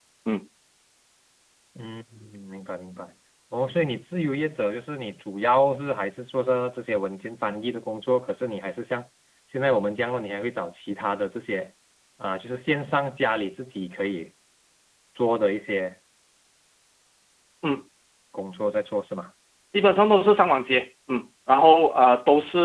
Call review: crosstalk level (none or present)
none